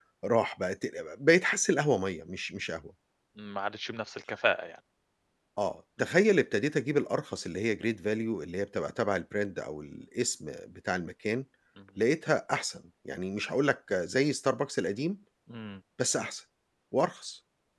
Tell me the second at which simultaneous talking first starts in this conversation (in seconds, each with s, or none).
none